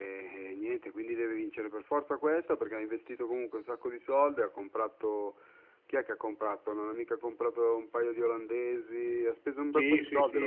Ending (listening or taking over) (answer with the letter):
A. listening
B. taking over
B